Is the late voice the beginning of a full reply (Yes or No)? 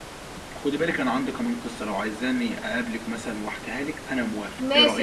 Yes